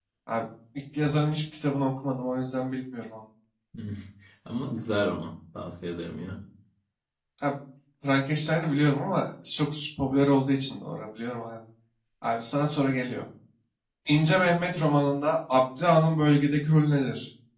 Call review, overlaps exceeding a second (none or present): none